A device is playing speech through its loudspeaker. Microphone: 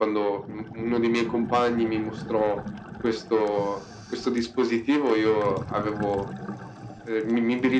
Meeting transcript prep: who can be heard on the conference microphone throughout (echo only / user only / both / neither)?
echo only